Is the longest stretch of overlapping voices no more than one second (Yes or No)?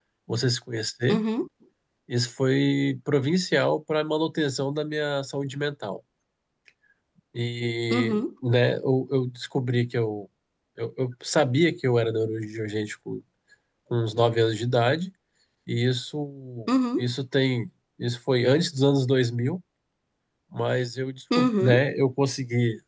Yes